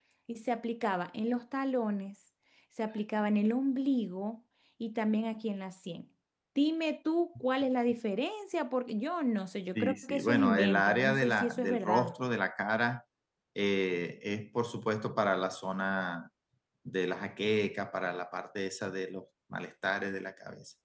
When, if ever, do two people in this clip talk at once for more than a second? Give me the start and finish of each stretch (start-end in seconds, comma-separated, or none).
9.8-12.1